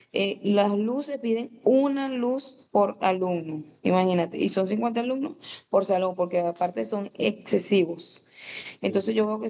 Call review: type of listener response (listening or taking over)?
listening